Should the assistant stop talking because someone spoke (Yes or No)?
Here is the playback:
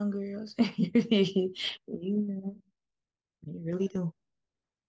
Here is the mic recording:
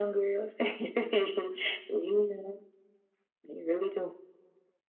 No